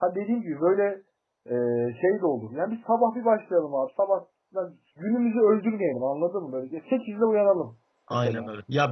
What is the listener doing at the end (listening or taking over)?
taking over